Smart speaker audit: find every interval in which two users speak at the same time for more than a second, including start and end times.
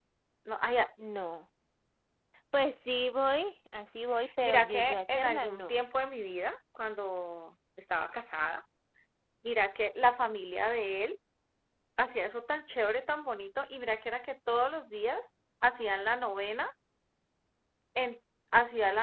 4.4-5.8

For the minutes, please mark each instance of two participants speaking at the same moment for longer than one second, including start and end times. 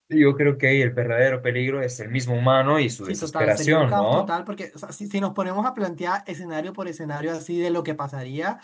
3.0-4.3

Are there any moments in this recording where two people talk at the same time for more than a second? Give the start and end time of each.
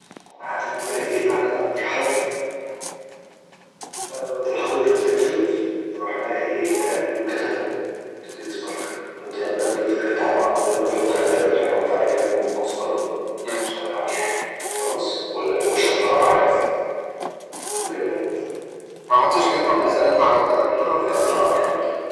19.3-21.4

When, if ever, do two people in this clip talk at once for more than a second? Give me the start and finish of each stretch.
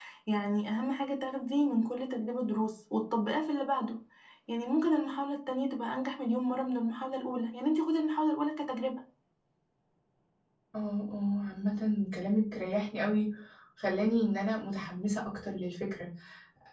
none

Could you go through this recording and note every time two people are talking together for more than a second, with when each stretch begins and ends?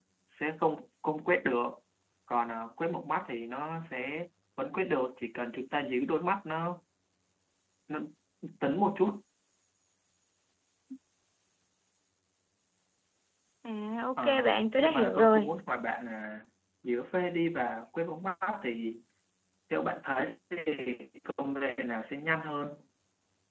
14.2-15.5

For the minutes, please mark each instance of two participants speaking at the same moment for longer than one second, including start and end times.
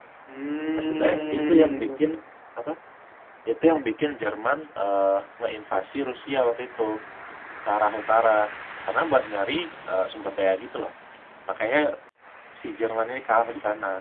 0.8-2.0

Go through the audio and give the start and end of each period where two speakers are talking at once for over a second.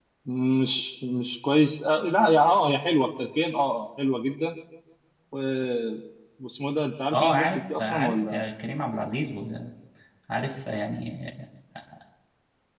7.1-8.4

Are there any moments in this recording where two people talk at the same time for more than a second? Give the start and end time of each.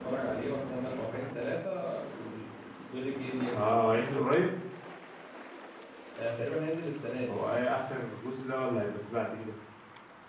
none

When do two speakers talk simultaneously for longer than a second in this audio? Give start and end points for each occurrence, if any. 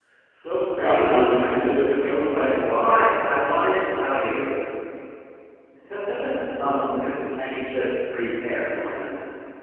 0.8-3.4

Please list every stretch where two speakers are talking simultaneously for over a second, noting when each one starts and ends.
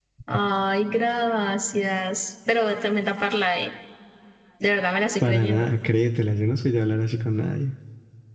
none

